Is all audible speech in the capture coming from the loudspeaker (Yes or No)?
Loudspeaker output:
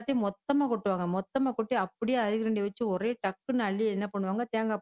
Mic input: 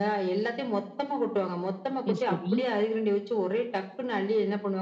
No